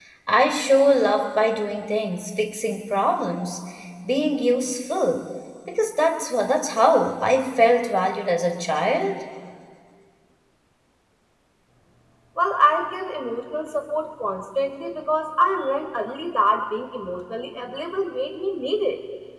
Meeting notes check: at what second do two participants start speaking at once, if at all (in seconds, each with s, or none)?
none